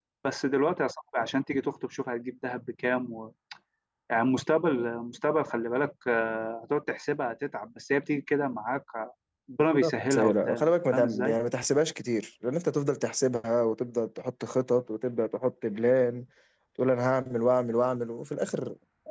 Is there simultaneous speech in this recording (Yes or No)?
Yes